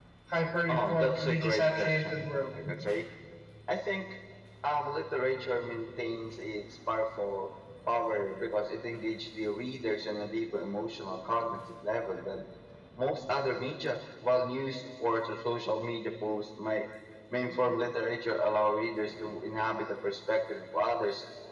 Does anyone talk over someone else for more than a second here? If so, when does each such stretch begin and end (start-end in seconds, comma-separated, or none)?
0.7-2.2